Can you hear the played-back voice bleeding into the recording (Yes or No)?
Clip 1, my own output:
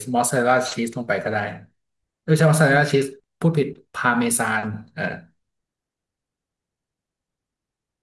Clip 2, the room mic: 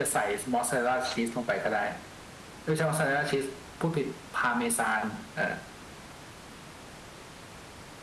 Yes